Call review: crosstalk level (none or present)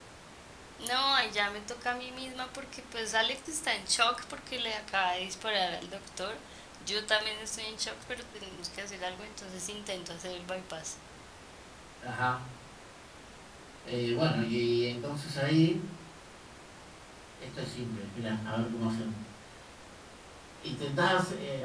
none